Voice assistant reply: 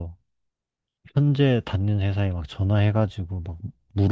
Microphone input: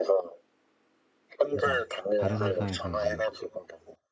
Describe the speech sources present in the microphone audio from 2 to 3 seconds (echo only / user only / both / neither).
both